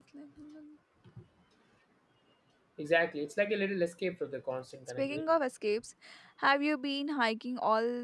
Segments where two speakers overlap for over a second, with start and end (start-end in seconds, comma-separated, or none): none